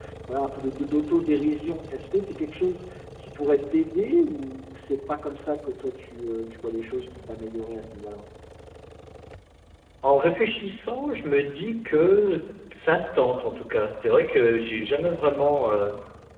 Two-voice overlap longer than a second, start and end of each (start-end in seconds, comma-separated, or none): none